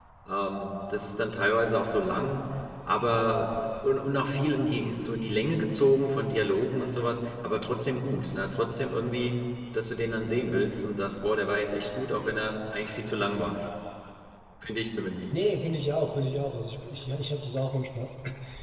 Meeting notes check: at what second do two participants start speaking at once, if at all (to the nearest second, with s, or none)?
none